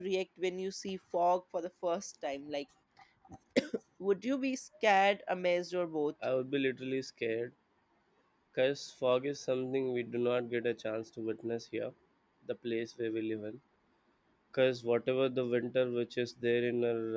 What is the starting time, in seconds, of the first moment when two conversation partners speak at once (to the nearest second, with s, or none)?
none